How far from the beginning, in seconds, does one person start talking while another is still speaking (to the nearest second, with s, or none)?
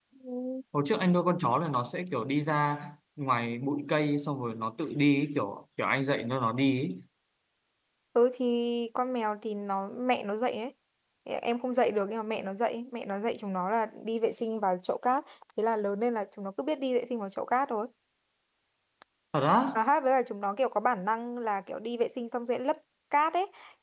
none